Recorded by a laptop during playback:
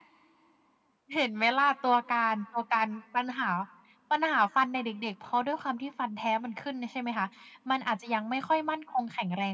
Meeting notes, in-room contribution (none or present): none